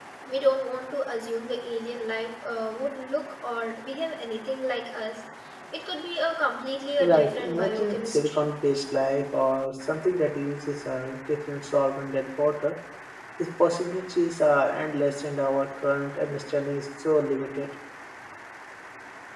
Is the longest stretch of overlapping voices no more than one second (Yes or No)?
No